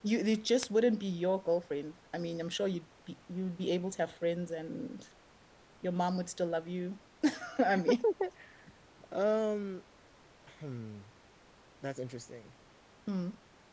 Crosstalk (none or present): none